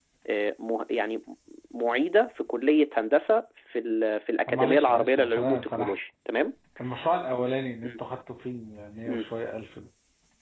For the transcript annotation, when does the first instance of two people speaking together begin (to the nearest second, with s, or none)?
4 s